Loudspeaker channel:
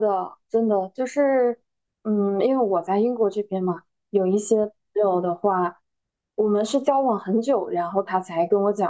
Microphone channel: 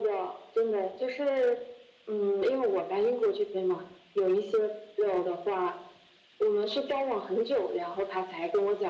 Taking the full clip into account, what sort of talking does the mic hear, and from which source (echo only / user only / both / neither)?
echo only